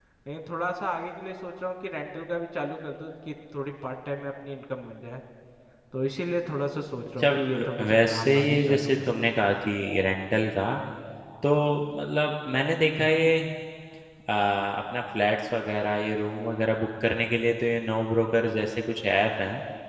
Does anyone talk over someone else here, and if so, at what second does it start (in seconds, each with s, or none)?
7.2 s